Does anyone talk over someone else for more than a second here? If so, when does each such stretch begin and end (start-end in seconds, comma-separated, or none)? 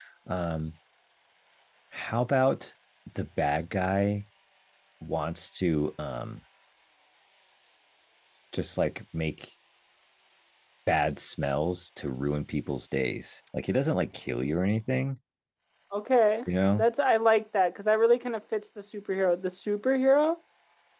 none